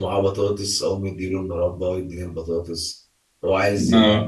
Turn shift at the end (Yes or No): No